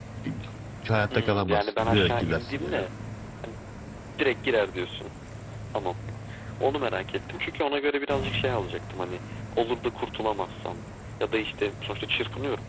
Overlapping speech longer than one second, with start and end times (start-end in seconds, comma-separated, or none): 1.1-2.9